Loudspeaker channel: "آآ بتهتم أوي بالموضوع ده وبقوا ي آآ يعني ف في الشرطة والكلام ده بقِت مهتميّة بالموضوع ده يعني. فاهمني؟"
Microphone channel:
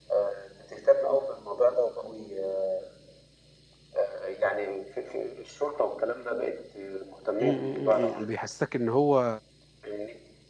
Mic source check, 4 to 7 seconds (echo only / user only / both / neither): echo only